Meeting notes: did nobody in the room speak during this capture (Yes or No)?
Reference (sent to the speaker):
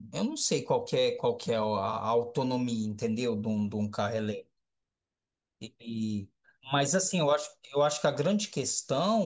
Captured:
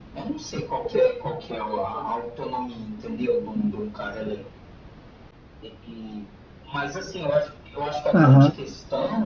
No